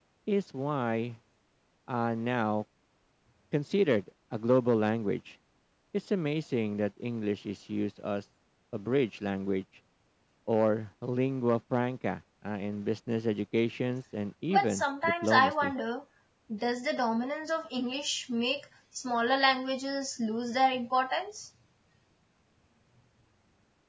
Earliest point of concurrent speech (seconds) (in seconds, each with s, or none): 14.5 s